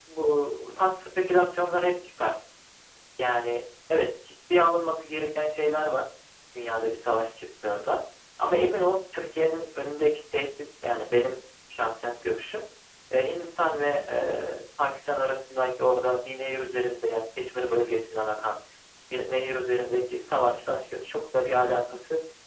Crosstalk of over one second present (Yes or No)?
No